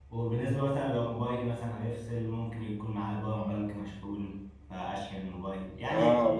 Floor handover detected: Yes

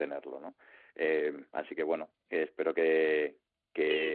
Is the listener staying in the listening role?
No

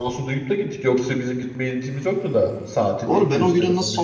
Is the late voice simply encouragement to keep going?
No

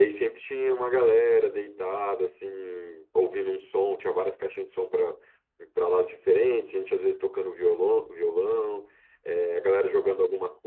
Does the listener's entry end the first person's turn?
No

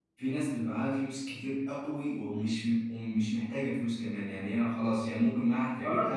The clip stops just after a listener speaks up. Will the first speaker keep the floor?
No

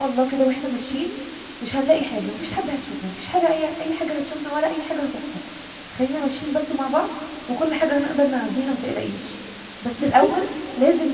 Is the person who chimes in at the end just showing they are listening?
Yes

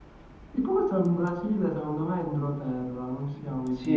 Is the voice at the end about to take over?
Yes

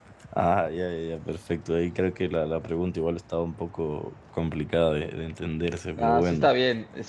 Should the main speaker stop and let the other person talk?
Yes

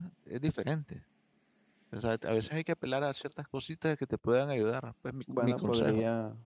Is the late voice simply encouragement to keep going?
No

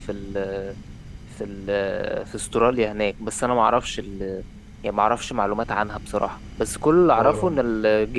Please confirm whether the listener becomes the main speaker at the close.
No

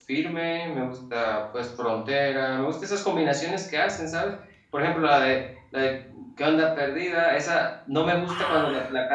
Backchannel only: Yes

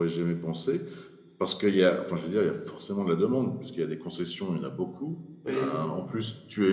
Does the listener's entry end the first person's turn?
No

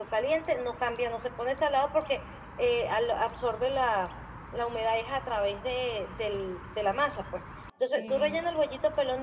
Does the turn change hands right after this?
No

